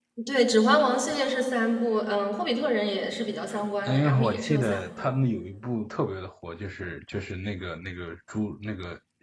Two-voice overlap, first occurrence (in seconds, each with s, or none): 3.9 s